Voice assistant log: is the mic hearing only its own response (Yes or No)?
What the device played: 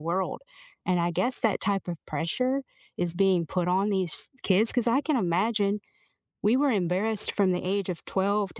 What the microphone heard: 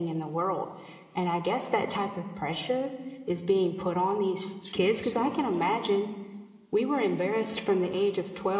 No